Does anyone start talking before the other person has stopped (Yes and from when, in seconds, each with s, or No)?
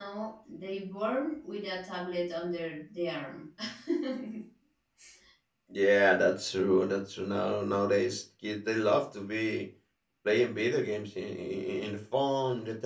No